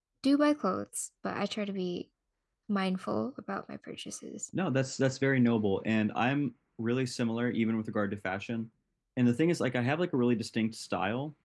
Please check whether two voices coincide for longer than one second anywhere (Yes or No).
No